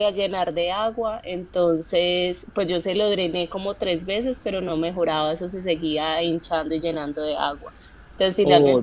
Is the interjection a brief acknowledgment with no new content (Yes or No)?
Yes